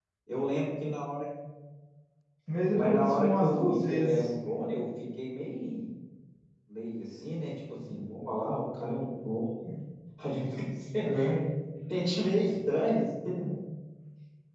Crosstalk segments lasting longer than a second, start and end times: 2.8-4.2

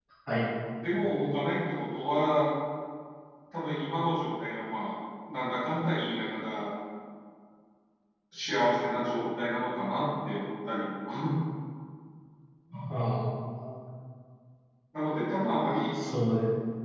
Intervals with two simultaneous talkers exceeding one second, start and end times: none

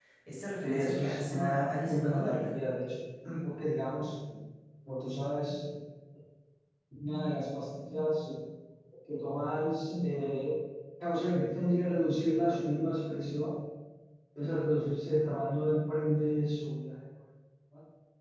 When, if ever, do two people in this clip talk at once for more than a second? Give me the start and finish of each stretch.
0.6-2.5

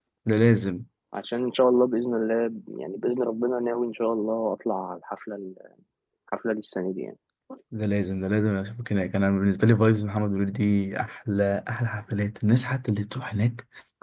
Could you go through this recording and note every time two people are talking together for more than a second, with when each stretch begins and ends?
none

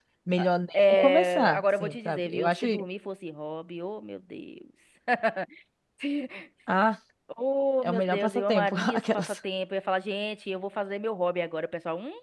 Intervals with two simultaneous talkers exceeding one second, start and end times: 0.7-2.9, 7.8-9.3

